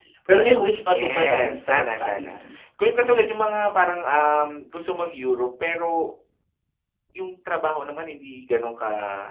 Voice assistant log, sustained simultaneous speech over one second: present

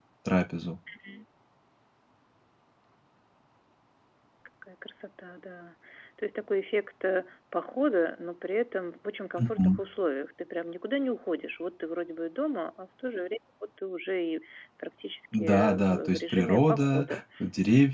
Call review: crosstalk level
present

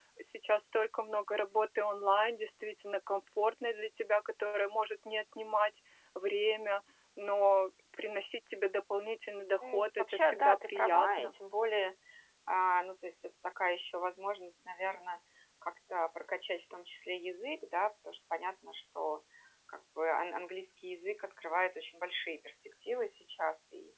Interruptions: present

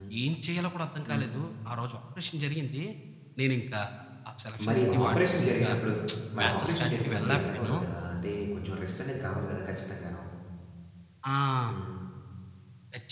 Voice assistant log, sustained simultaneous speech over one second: present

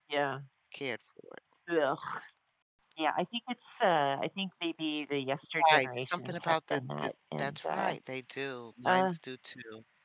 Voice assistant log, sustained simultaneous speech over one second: present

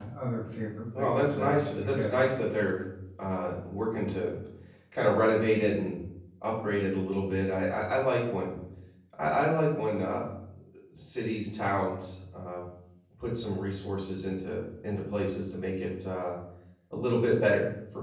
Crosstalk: present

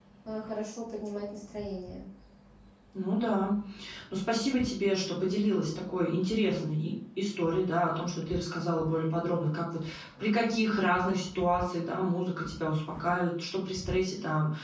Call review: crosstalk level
none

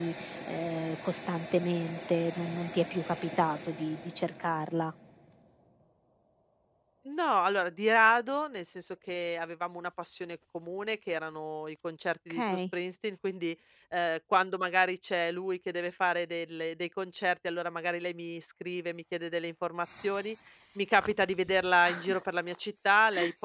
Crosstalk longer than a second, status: none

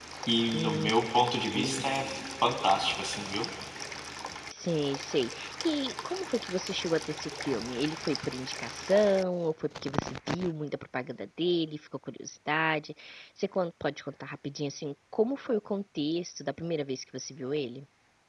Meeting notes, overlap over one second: none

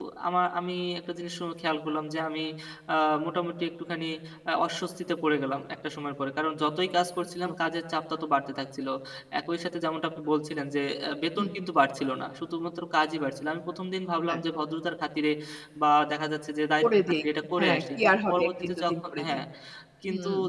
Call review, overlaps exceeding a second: present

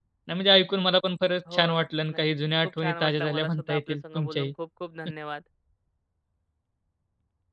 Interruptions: present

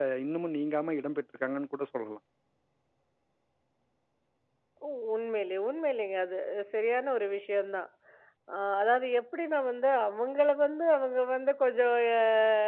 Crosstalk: none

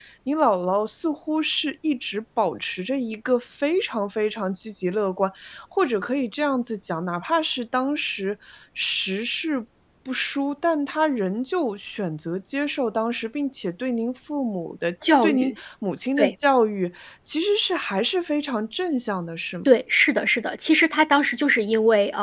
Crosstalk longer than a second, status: none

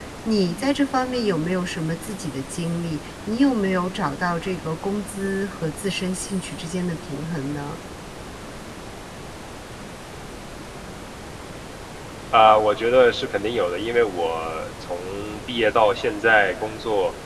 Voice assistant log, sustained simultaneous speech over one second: none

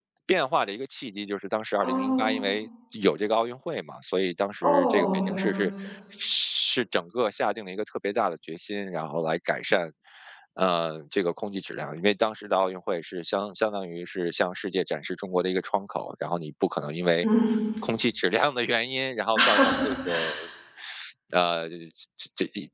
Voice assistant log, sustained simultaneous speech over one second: present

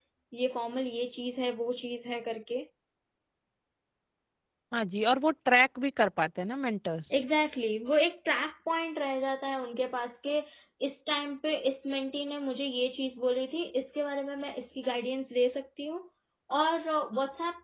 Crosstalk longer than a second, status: none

